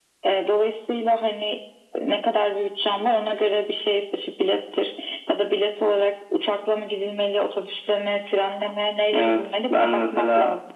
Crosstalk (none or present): present